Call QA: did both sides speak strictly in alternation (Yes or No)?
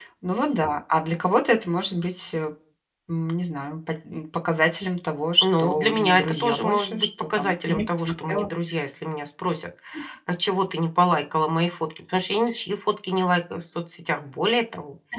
No